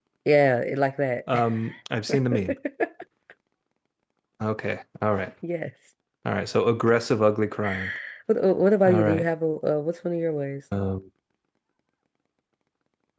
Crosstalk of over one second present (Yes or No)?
No